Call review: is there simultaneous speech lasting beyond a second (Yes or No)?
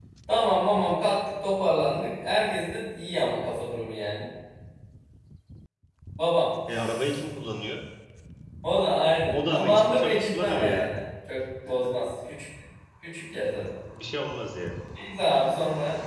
Yes